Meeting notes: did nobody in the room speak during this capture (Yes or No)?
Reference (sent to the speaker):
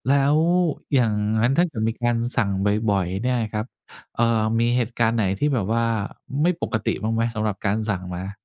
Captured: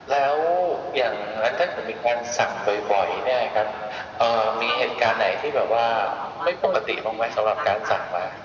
No